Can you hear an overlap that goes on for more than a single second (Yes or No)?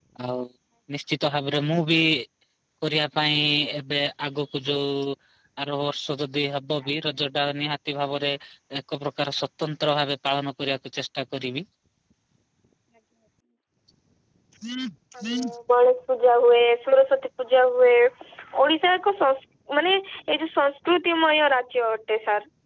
No